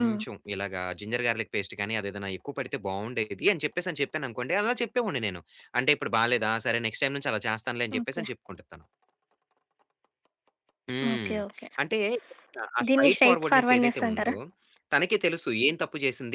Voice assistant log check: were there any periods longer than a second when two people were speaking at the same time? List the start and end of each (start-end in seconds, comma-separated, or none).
13.0-14.3